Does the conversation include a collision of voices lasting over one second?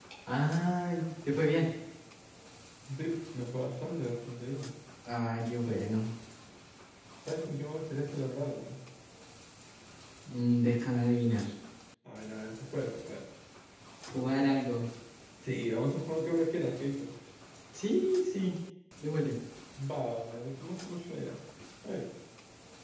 No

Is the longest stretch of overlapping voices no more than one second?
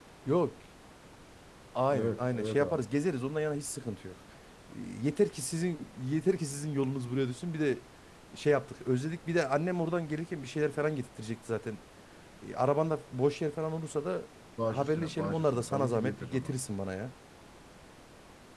No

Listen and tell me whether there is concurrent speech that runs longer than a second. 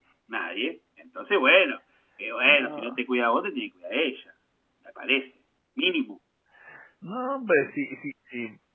No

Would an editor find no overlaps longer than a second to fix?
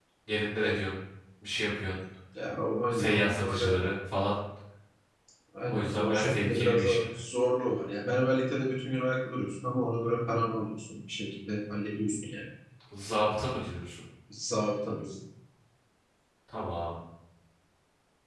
No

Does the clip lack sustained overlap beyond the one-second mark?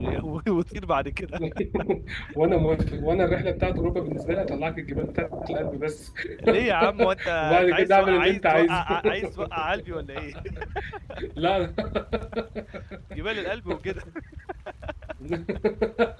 No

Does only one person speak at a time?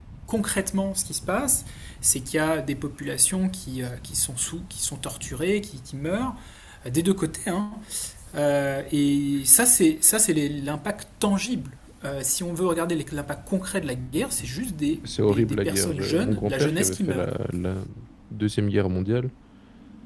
No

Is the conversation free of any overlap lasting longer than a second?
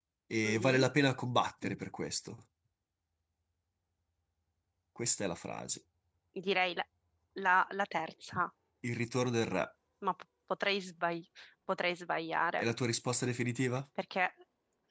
Yes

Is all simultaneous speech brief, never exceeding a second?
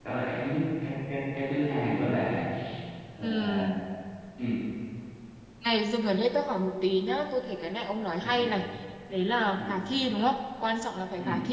Yes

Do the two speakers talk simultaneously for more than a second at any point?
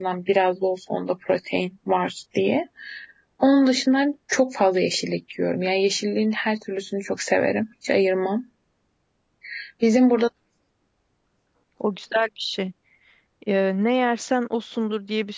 No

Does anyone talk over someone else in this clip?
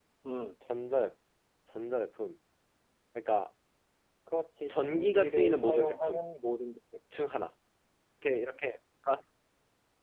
Yes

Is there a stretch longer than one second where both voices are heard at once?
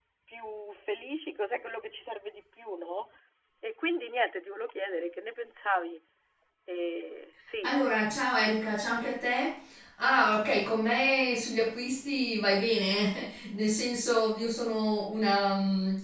No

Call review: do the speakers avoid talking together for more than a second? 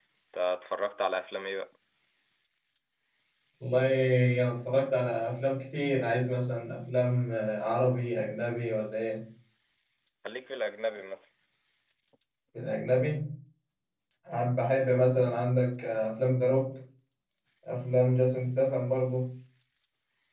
Yes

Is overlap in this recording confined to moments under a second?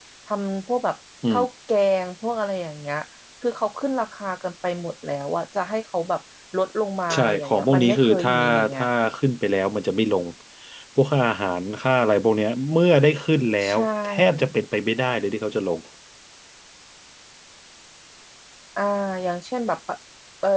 No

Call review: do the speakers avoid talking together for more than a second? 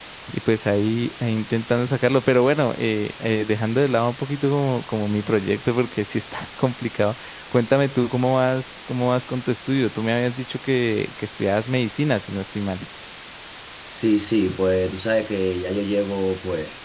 Yes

